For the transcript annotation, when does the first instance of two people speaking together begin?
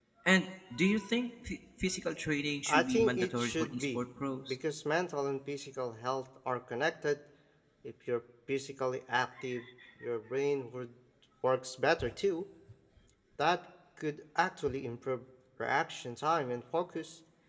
2.7 s

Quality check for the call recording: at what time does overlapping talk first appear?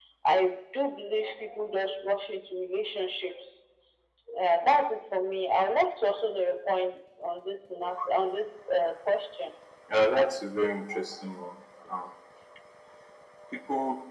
none

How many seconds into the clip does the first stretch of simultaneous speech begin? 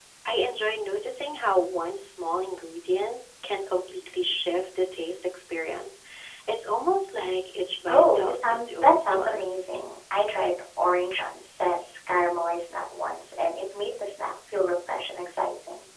7.9 s

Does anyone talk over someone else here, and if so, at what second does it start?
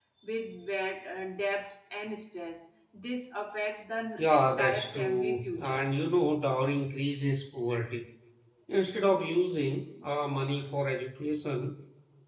4.2 s

